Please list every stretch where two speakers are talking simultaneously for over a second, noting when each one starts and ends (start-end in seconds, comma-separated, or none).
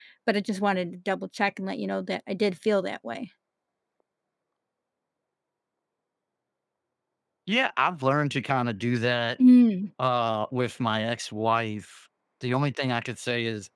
none